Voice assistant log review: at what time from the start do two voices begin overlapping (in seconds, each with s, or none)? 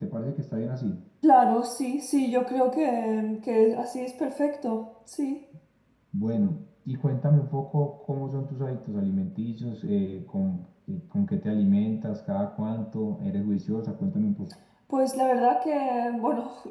none